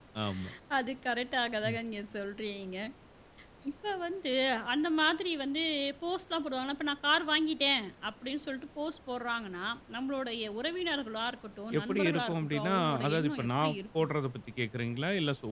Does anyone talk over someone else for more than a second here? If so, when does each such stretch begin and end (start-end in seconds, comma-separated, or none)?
11.8-14.1